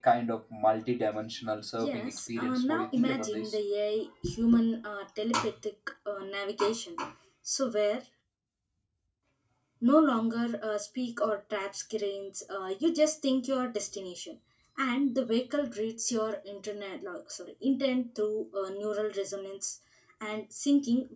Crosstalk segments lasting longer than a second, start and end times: 1.8-3.6

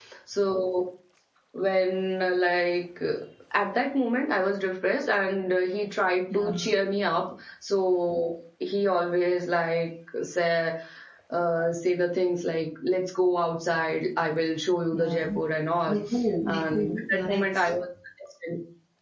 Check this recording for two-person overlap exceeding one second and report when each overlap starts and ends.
16.5-17.7

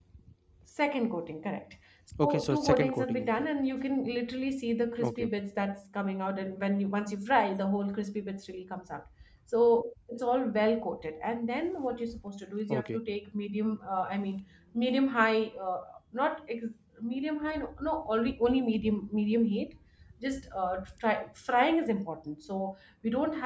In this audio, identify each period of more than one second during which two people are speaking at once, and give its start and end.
2.2-3.5

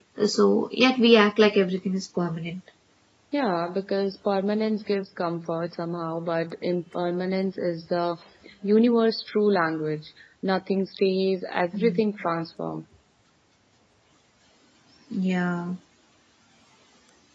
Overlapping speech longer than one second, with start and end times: none

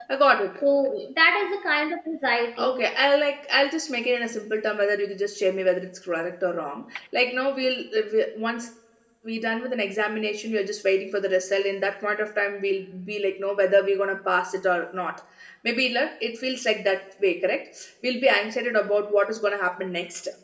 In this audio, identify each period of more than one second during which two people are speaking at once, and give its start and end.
none

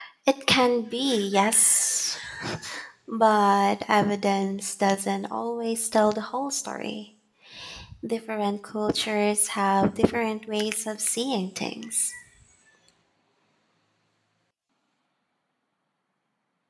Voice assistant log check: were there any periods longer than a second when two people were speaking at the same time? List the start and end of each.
none

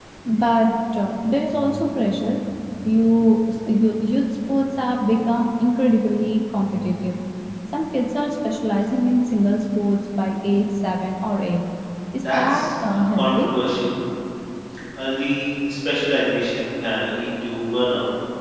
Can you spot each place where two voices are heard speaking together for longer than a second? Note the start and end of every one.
12.2-13.5

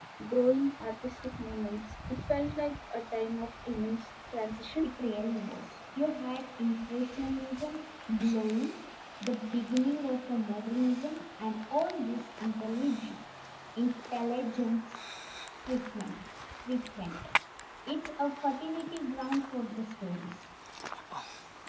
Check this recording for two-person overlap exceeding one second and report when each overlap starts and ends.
none

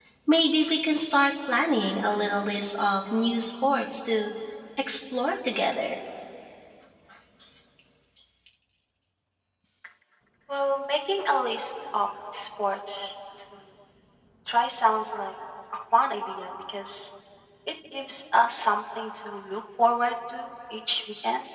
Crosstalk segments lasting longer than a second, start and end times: none

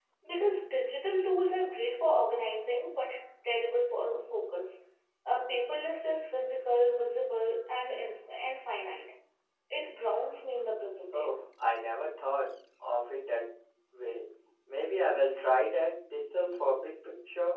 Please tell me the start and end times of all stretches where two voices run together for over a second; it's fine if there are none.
none

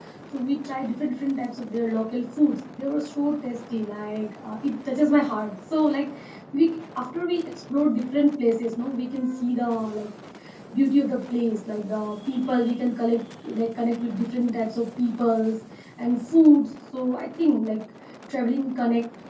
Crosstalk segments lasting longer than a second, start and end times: none

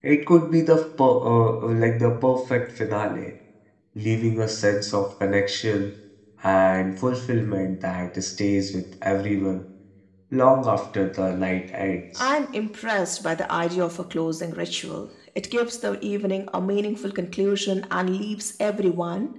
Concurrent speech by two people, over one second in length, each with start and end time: none

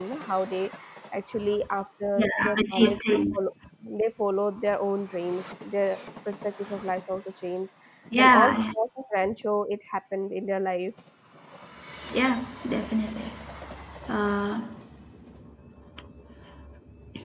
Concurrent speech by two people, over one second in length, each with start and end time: 2.2-3.4

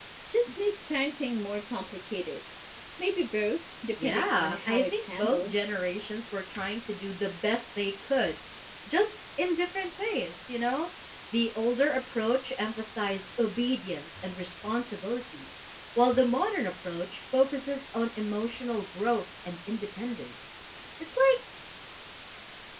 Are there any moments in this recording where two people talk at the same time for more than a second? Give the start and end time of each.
4.0-5.5

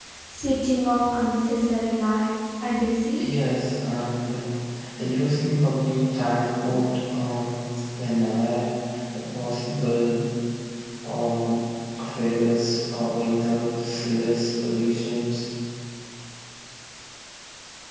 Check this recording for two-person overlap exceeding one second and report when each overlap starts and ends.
none

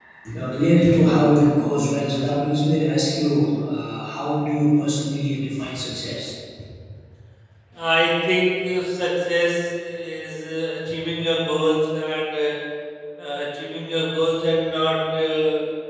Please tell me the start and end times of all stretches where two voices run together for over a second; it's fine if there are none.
none

